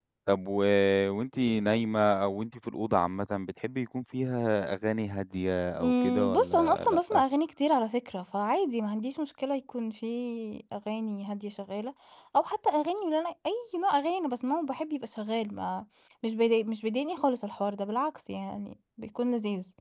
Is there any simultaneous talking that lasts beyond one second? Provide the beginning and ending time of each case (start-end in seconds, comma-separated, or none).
5.8-7.2